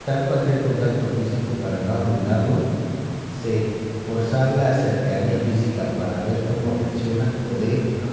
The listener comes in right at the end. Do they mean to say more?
No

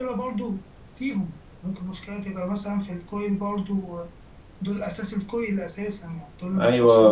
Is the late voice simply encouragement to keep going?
No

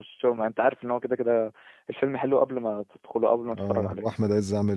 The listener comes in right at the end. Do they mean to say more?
Yes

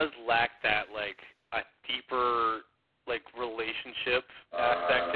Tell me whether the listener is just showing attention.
Yes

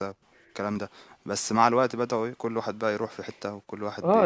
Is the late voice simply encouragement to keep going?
No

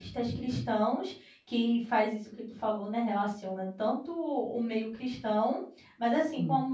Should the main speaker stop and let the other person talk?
No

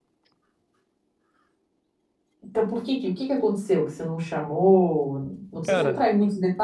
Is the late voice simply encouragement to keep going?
Yes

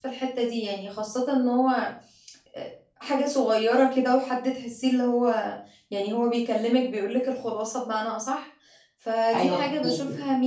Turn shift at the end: No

